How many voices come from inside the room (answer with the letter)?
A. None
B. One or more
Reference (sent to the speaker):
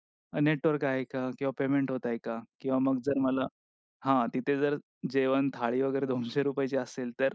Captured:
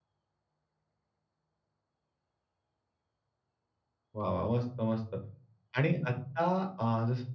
B